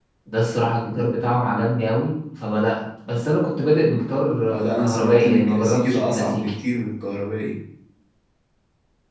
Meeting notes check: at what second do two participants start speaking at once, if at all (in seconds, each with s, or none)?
4.5 s